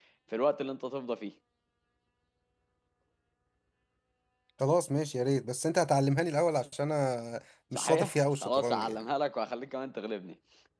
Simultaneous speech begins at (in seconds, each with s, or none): 7.7 s